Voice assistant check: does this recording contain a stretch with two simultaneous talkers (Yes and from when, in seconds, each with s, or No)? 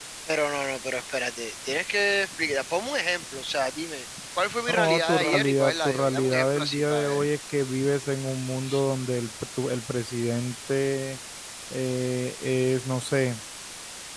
Yes, from 4.7 s